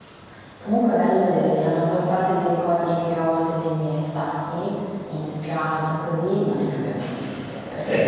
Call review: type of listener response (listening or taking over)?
taking over